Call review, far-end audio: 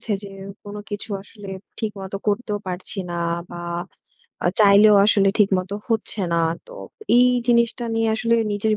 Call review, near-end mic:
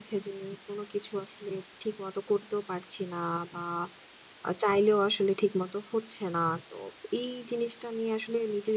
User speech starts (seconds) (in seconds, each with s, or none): none